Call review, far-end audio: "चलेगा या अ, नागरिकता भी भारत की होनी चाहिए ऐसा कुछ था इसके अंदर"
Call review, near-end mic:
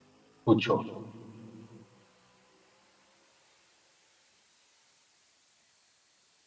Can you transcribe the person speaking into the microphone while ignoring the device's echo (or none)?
पूछो